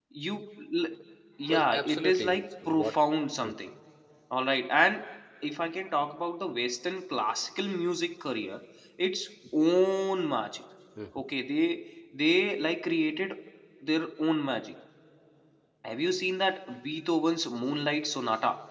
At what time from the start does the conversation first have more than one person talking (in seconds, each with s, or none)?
1.5 s